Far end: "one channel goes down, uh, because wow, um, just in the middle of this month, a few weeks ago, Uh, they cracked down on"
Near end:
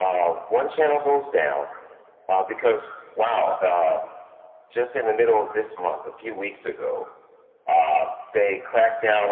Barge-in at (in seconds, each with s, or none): none